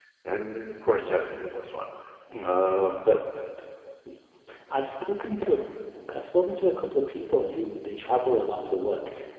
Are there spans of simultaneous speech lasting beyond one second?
No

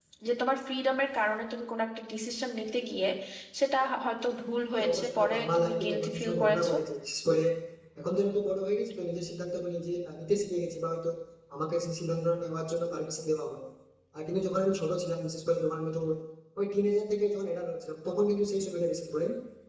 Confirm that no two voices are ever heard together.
No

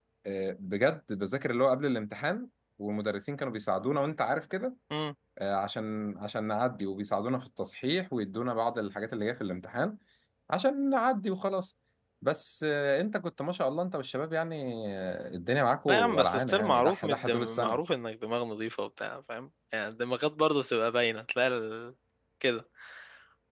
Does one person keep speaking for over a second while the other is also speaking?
Yes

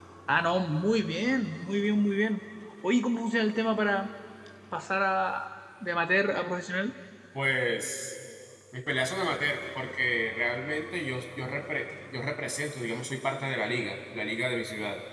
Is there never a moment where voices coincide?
Yes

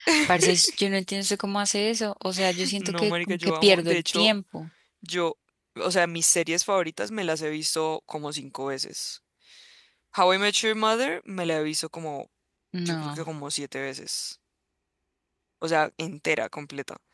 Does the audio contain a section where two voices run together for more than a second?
Yes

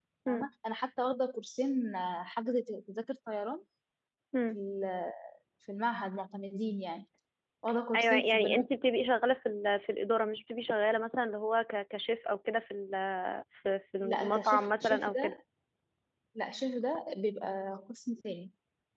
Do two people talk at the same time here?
Yes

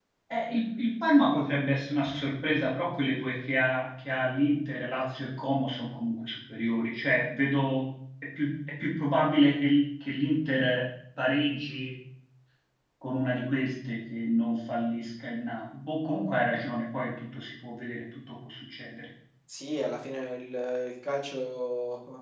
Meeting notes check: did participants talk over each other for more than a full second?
No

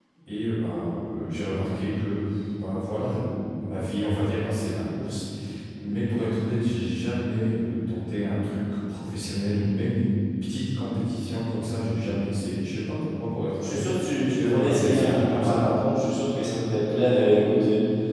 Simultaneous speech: Yes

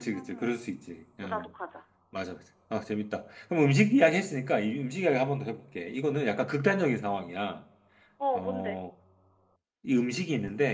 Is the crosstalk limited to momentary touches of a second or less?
Yes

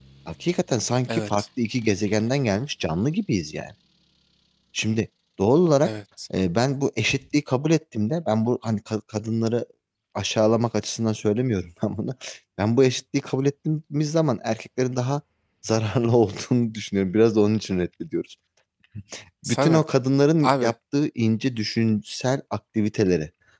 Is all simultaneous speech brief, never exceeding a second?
Yes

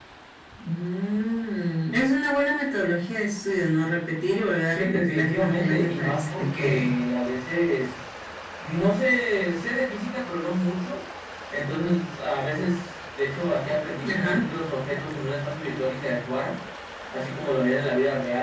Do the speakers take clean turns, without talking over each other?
No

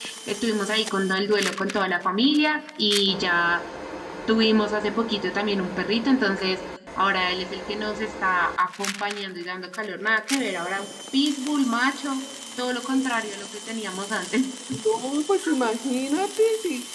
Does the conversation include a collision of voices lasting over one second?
No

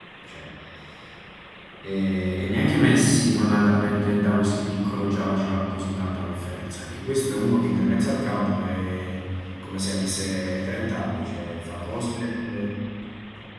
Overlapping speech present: No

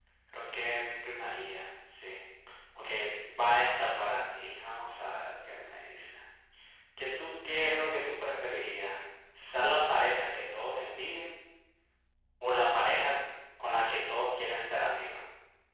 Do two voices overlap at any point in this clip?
No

